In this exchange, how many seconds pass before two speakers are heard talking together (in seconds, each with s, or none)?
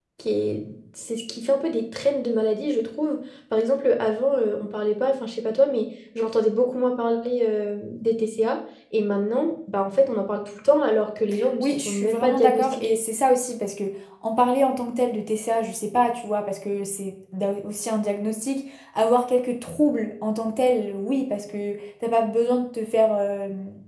11.6 s